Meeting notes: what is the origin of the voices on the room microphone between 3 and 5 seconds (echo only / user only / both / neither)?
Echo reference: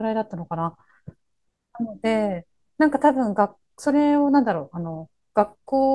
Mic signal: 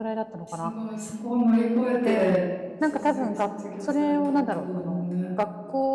both